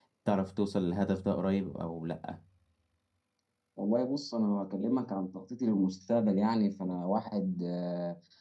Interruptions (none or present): none